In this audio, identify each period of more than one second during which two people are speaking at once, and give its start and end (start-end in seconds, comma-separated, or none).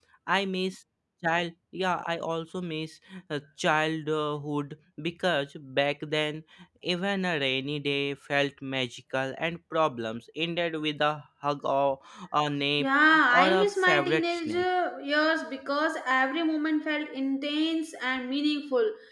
13.3-14.6